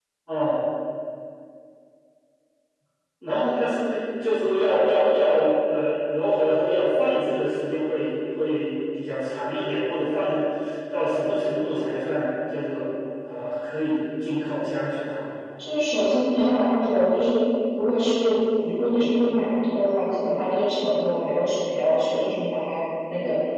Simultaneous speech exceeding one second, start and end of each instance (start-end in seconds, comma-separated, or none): none